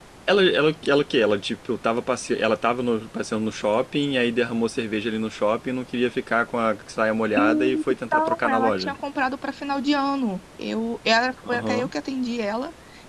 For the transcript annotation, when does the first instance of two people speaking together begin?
7.4 s

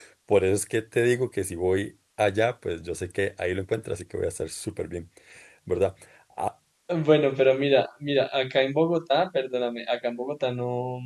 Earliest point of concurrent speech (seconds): none

